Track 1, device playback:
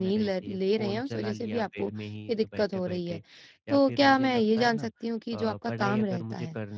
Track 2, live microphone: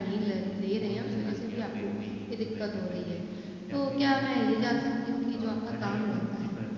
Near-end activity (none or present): none